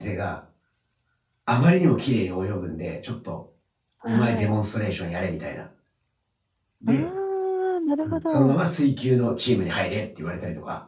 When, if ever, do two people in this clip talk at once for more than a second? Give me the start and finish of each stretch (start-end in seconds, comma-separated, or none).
none